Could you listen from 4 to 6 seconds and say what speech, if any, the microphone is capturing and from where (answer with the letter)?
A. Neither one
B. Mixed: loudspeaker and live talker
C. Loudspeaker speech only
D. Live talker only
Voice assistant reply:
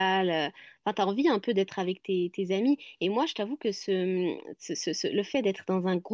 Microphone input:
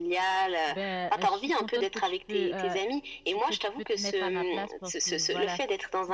B